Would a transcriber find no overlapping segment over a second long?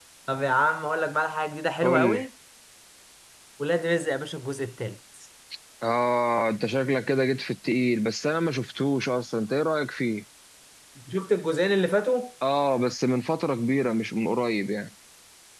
Yes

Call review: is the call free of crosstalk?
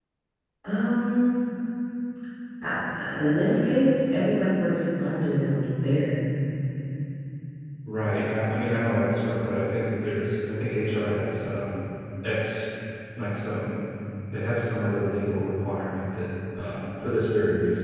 Yes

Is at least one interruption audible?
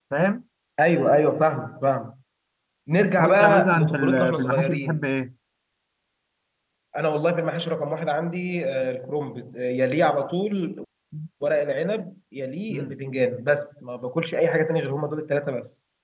Yes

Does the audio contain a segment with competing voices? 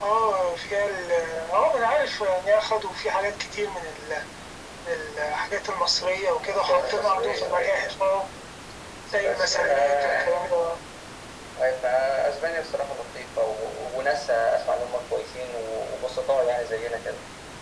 Yes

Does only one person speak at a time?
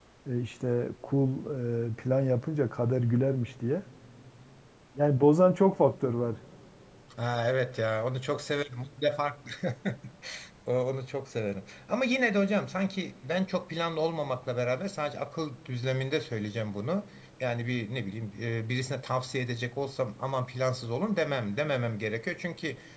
Yes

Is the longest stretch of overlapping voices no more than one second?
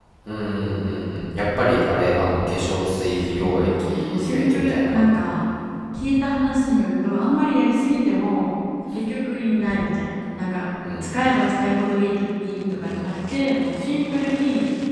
No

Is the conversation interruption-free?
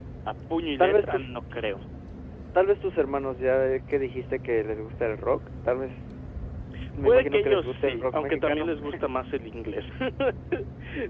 No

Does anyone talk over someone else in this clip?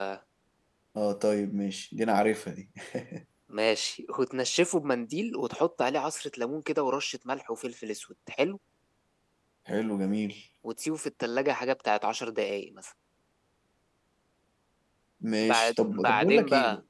Yes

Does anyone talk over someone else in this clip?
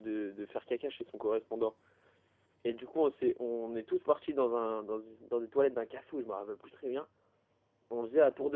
No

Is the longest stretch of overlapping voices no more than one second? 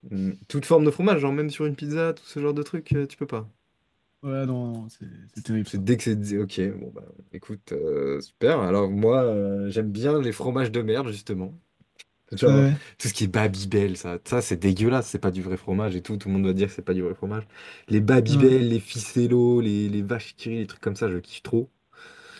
Yes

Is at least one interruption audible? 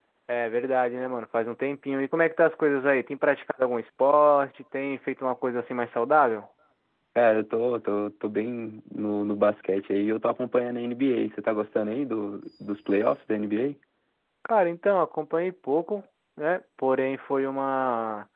No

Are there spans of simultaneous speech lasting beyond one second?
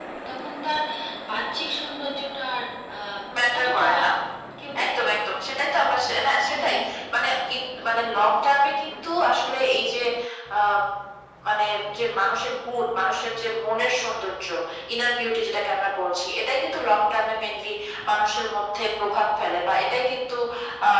No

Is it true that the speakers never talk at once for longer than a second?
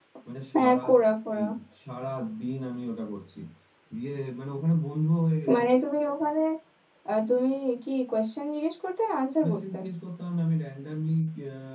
Yes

